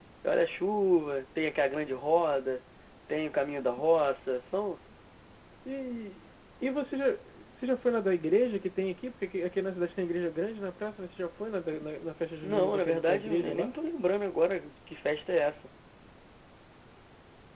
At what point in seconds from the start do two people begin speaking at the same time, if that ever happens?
12.4 s

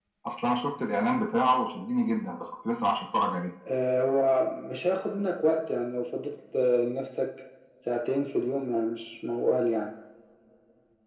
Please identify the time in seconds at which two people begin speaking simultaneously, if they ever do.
none

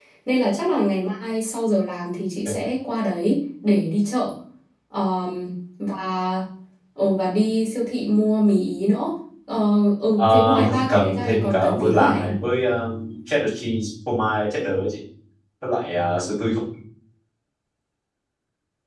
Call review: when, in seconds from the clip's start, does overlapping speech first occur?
10.2 s

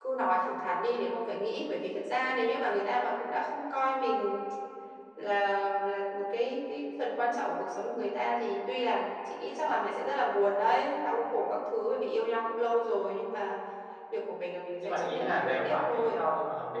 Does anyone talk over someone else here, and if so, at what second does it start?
14.8 s

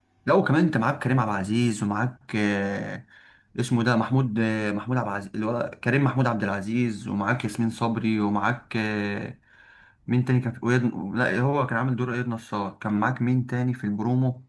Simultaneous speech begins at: none

